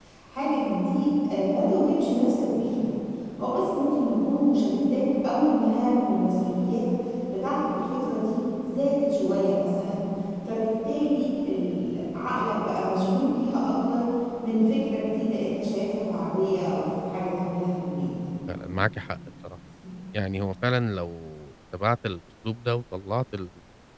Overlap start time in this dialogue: none

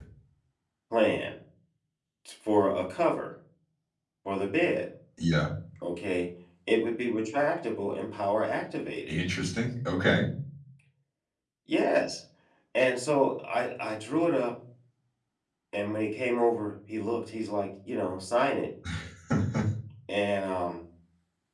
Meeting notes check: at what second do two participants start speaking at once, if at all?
none

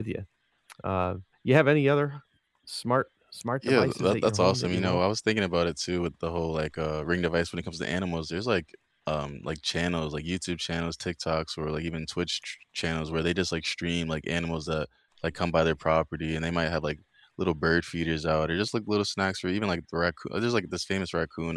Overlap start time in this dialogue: 3.6 s

